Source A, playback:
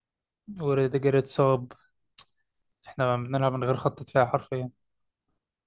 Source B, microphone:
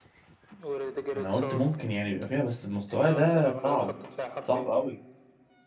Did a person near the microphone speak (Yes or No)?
Yes